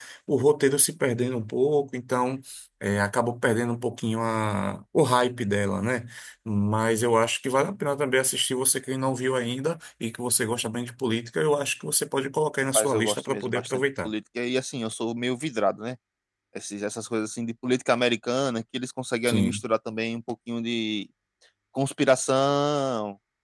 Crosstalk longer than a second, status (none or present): present